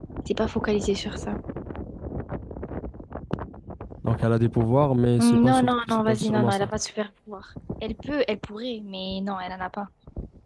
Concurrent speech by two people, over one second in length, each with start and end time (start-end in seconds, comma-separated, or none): 5.2-6.7